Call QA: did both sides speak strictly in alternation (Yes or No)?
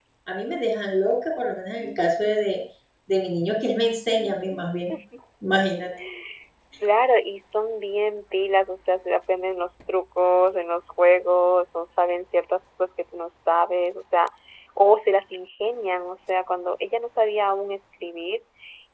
Yes